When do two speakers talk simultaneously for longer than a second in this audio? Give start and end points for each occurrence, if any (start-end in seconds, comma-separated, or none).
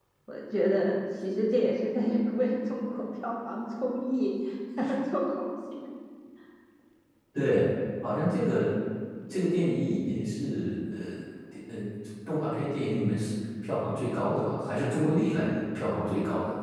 none